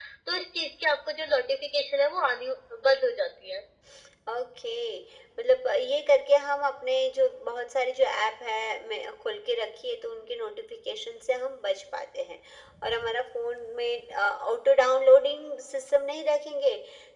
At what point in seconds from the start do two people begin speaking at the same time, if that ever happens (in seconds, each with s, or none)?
none